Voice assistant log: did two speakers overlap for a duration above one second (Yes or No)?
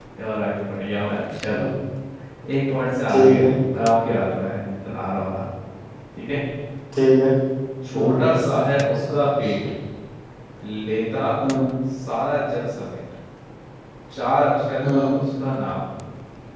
No